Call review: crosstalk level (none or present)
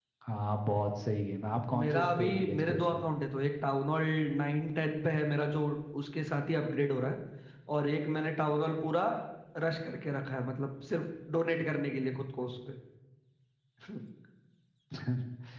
present